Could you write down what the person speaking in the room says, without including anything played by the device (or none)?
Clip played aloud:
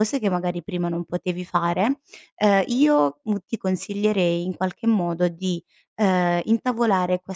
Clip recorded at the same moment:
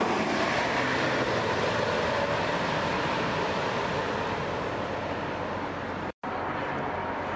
none